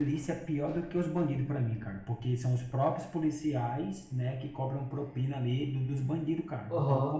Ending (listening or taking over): taking over